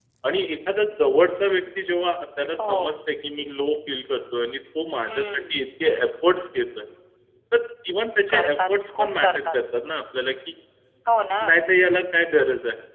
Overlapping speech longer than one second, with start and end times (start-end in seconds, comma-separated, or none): 8.3-9.6